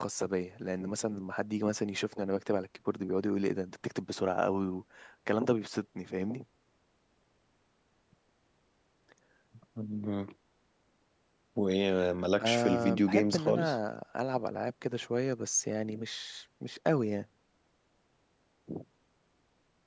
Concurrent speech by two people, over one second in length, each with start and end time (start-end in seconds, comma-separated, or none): 12.4-13.7